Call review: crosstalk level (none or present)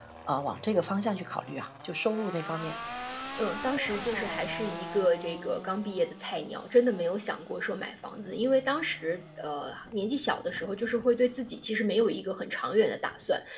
none